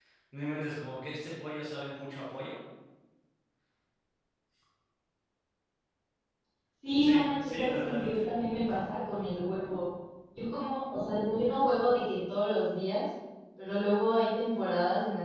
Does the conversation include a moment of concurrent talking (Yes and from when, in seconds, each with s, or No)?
Yes, from 7.0 s